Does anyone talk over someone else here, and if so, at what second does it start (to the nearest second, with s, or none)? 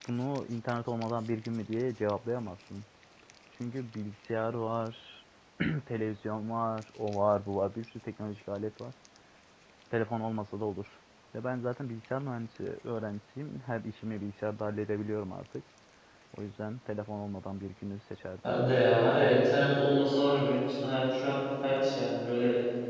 none